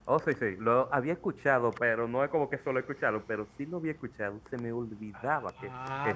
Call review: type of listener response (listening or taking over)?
taking over